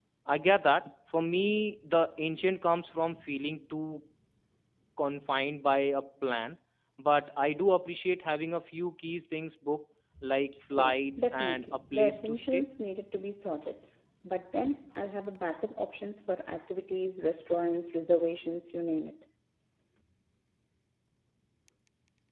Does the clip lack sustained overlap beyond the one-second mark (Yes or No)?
No